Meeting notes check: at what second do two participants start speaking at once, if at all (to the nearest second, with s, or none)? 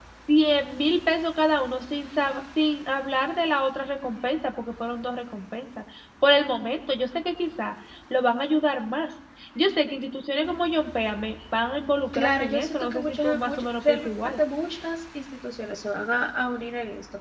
12 s